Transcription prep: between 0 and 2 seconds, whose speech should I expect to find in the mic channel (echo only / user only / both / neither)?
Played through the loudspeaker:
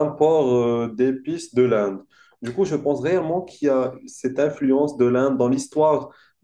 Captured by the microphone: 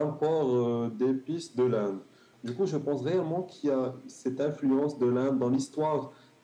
echo only